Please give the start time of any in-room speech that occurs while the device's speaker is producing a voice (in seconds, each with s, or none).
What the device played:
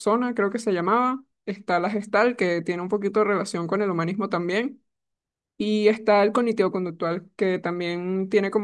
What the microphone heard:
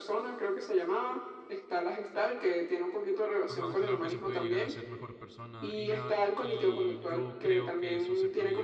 3.5 s